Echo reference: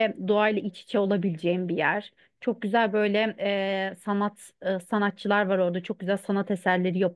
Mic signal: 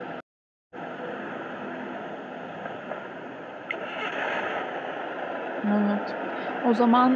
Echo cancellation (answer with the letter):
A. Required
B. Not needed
B